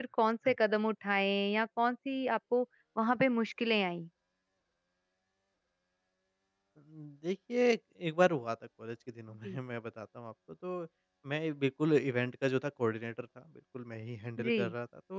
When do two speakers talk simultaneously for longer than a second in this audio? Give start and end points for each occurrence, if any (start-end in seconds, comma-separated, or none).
none